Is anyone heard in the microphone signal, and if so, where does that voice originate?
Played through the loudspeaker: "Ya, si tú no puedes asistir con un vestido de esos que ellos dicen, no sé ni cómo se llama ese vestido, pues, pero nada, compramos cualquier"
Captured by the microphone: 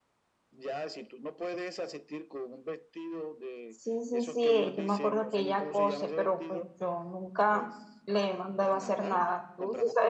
both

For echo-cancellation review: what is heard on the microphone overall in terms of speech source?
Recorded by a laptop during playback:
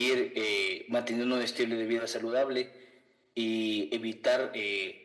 echo only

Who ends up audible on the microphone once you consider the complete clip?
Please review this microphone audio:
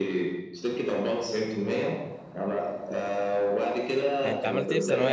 both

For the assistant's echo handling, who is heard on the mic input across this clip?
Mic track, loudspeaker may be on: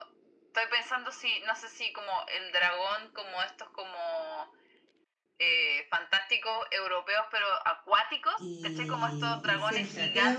both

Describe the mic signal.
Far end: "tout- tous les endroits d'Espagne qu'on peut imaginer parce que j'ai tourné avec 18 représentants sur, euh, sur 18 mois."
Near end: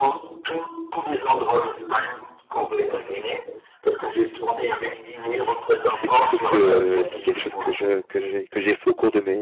both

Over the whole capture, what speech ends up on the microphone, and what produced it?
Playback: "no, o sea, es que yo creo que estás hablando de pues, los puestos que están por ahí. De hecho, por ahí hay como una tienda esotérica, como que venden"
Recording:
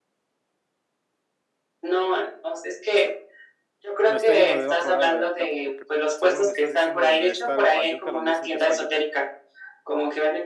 both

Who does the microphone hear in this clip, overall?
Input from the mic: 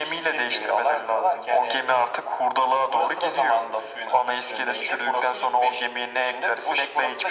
echo only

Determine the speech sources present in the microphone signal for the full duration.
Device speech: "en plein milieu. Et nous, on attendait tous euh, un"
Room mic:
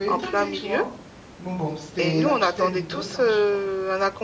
both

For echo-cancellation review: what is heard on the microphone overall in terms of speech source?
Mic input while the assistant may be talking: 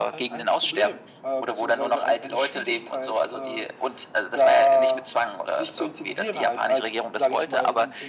echo only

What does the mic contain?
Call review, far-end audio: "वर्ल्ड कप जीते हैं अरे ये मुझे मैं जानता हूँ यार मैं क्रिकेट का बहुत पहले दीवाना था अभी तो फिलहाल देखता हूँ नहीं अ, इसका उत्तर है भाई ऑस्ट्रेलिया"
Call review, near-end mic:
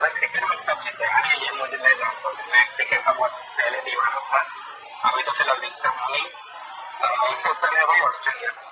echo only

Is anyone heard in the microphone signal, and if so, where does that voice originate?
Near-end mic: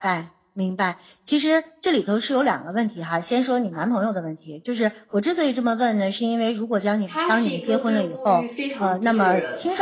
both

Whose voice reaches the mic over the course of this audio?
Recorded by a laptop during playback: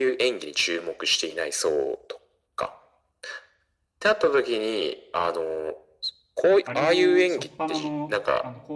both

